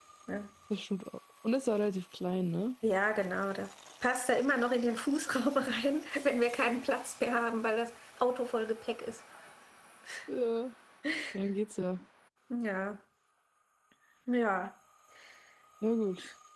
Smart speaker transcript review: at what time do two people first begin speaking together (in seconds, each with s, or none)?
none